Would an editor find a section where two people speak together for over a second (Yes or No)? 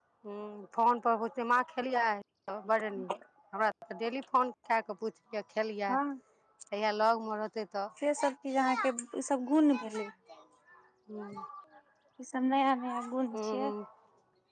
No